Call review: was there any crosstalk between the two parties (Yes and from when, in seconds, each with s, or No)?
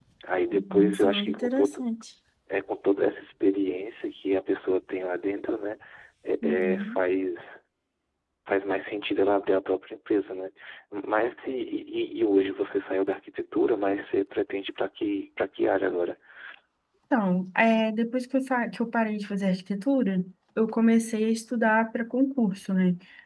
Yes, from 0.5 s